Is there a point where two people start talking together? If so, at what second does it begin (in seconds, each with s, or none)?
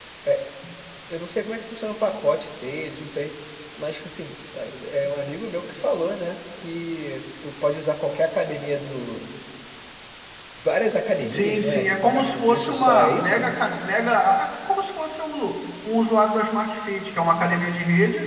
11.3 s